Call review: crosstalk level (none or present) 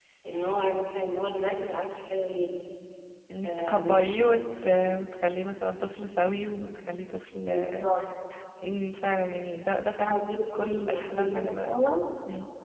present